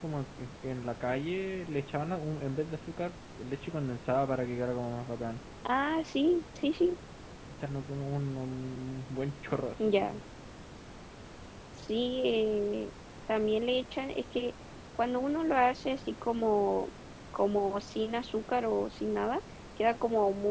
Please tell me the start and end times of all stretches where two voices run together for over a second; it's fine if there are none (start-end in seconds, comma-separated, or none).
none